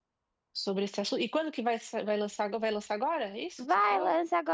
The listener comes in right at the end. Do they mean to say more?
Yes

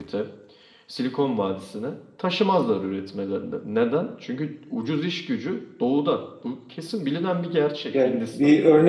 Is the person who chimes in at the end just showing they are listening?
No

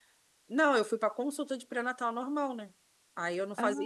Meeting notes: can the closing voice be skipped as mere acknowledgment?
Yes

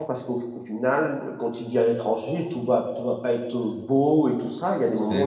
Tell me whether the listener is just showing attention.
Yes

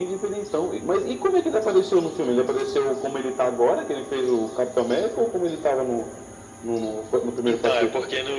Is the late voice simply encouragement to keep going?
No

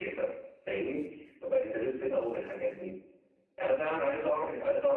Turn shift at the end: No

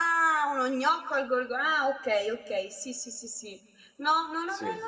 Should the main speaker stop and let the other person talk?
No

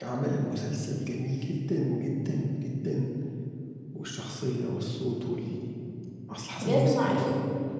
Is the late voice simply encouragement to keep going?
No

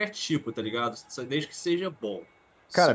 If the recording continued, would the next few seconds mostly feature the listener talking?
Yes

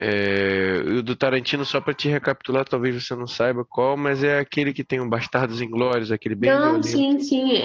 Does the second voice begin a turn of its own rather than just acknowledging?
Yes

